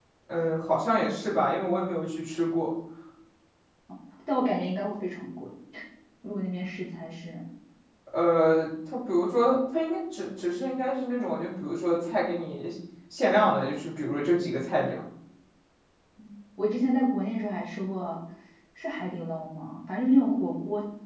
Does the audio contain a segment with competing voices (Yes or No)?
No